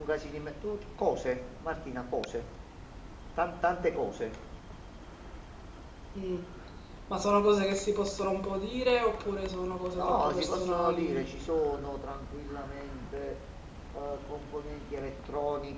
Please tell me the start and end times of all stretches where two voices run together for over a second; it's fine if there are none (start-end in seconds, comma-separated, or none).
10.0-11.2